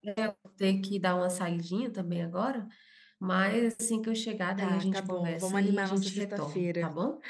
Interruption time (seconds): 4.6 s

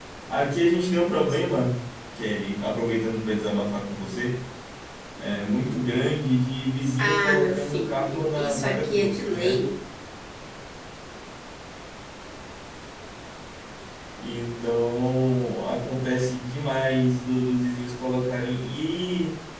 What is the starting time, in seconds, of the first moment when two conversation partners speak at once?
7.0 s

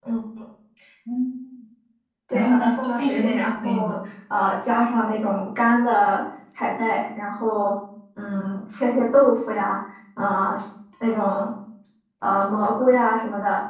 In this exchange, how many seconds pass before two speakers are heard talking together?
2.3 s

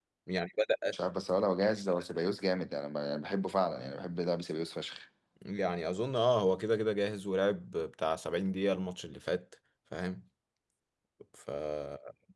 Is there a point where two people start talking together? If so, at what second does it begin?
none

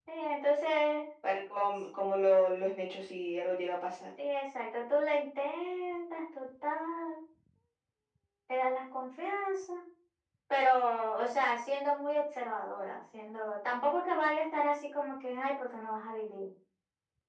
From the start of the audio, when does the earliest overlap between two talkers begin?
none

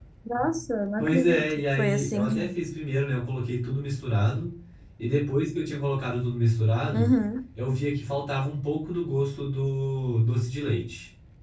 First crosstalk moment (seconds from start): 1.0 s

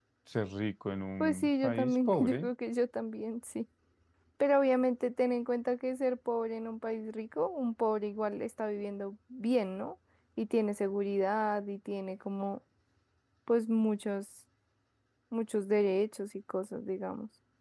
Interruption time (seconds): 1.2 s

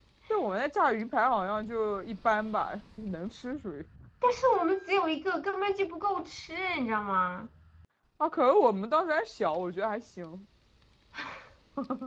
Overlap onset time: none

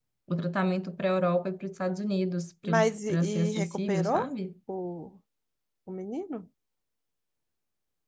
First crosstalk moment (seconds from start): 2.6 s

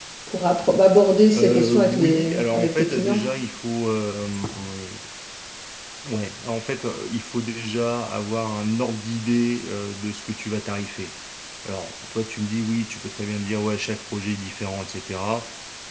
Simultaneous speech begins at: 1.3 s

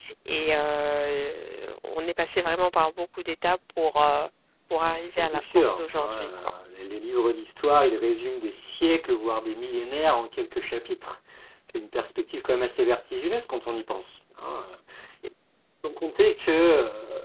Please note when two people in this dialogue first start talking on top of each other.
5.2 s

